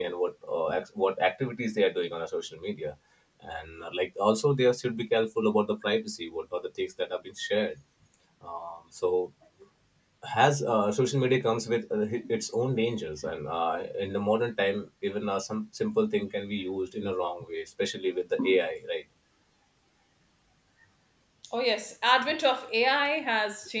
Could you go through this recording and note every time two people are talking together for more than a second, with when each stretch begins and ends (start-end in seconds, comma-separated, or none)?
none